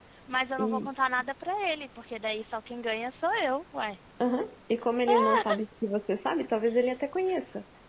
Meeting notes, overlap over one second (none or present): none